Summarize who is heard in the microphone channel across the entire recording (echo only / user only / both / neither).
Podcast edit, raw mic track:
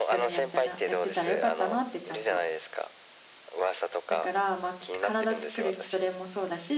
both